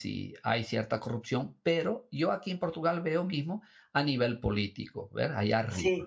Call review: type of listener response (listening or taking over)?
listening